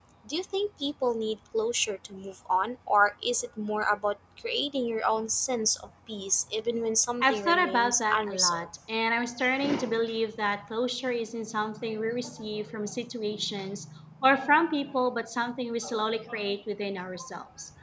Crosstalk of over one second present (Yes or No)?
Yes